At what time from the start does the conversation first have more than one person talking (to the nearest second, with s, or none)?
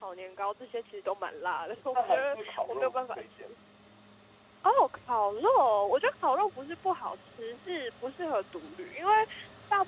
2 s